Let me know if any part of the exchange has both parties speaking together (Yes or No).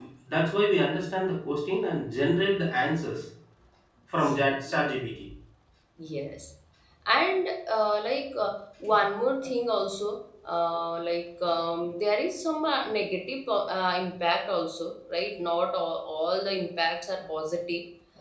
No